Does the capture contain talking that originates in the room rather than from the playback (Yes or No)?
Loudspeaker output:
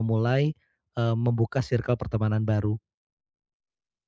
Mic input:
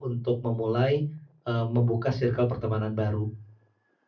No